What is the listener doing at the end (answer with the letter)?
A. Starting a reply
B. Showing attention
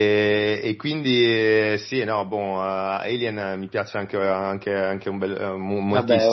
A